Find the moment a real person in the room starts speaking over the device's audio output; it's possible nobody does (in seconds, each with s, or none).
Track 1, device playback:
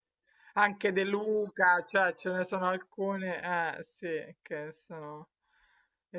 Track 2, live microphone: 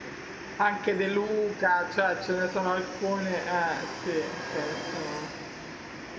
none